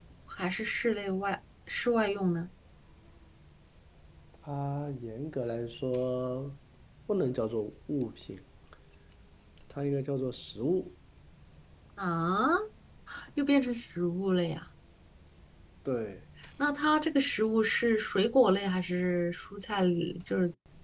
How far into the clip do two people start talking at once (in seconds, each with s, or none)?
none